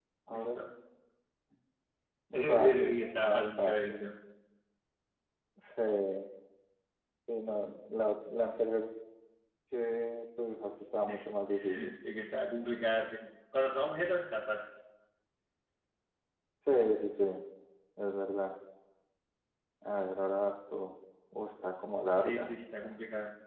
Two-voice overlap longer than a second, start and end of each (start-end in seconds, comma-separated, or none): 2.3-4.0